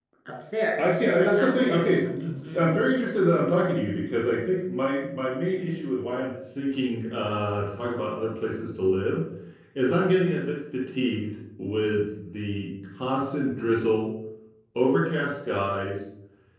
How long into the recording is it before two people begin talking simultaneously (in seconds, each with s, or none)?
0.8 s